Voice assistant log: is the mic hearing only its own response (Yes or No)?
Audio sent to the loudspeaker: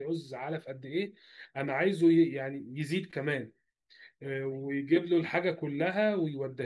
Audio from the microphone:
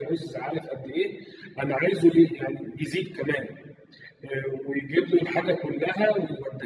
Yes